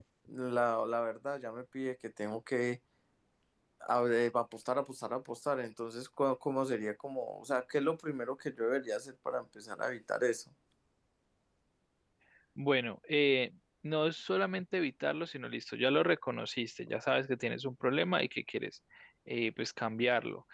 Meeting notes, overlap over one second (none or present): none